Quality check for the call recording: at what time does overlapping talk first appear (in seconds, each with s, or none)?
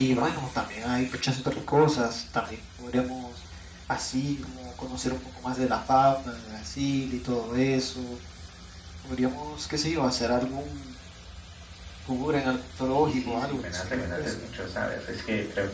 12.9 s